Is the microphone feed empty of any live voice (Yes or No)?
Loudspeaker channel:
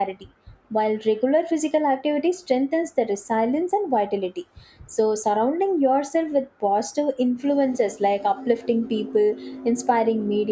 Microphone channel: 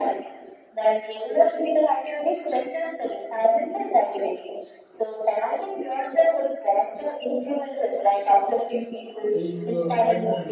No